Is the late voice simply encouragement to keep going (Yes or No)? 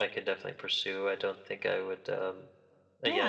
No